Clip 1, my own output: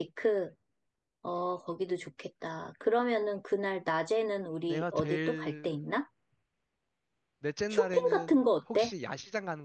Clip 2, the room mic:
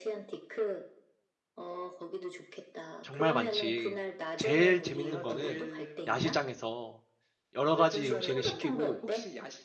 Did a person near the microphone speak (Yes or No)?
Yes